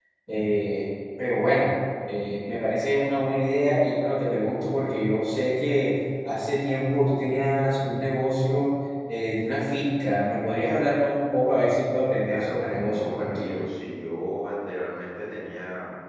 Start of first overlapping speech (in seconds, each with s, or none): 12.2 s